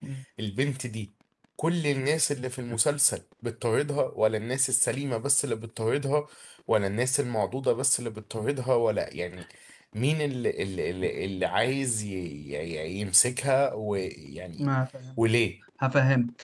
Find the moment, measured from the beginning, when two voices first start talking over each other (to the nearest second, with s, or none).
none